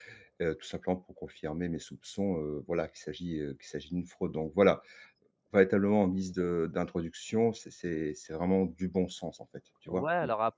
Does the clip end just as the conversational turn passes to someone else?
Yes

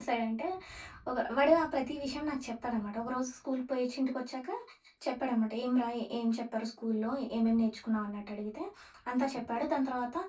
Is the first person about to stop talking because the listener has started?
No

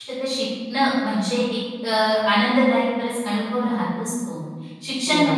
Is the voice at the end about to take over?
No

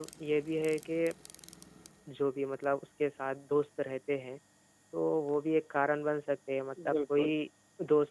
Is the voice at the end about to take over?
No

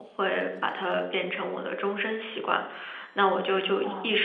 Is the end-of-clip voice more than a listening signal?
No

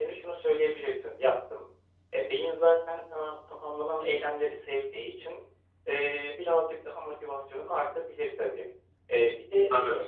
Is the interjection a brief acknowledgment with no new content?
Yes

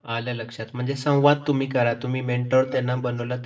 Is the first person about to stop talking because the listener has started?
No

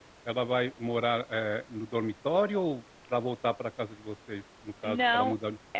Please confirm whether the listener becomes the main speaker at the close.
Yes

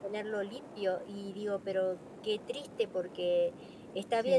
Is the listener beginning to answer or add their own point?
No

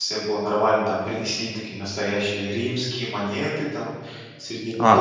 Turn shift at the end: Yes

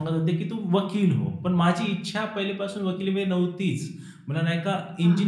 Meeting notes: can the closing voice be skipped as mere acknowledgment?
Yes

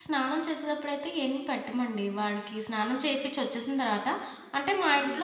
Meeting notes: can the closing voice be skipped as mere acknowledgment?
No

